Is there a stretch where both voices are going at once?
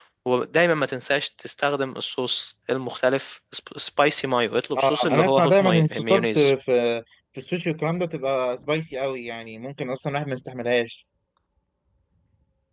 Yes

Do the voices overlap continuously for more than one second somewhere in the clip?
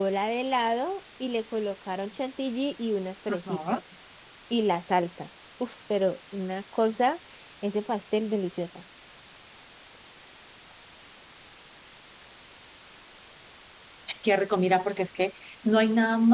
No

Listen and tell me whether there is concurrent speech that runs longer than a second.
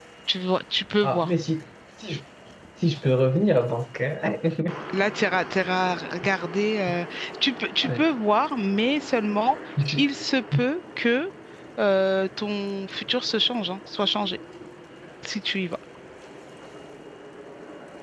No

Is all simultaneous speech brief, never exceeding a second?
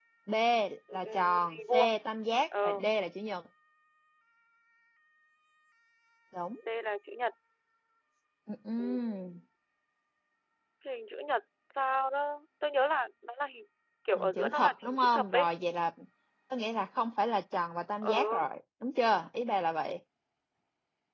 No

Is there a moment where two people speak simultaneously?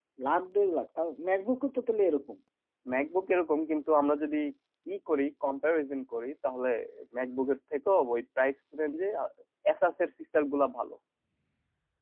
No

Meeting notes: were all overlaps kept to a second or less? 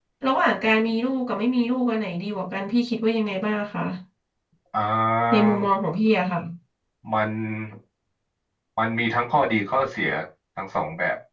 Yes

